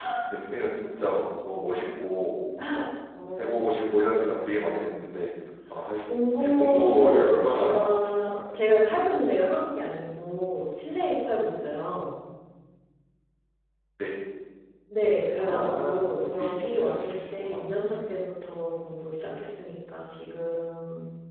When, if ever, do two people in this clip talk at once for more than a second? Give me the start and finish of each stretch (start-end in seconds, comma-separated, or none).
6.4-8.3, 15.3-17.6